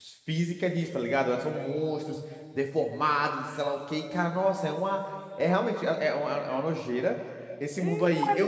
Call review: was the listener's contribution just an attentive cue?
No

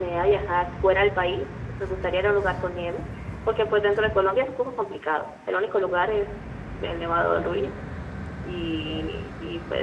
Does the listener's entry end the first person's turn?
No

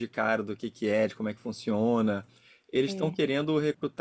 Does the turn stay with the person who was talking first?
Yes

